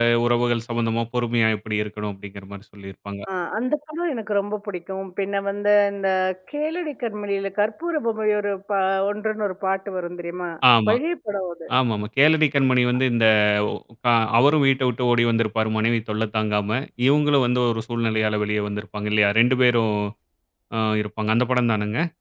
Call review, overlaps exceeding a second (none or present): none